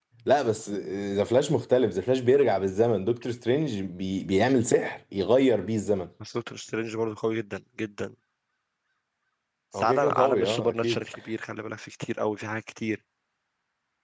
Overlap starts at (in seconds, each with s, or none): 9.8 s